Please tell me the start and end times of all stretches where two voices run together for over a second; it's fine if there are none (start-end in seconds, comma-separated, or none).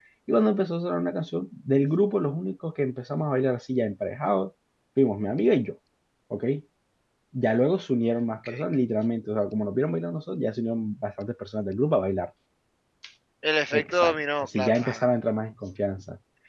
13.7-15.0